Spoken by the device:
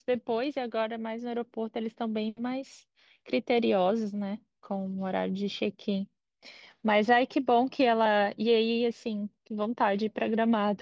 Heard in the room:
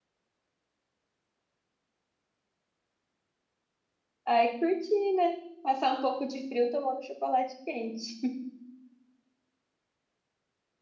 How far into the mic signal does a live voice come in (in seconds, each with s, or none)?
4.2 s